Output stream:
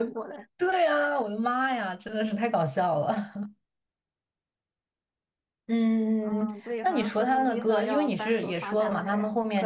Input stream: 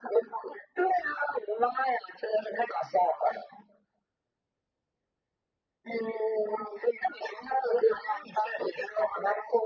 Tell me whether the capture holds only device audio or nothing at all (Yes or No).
Yes